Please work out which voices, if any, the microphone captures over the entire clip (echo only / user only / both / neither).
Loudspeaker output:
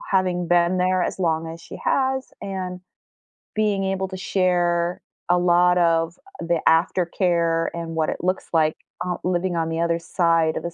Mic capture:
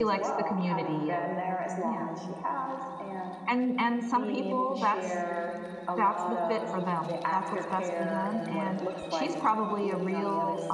both